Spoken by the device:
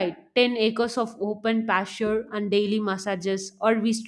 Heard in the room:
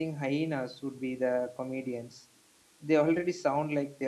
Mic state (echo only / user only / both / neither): user only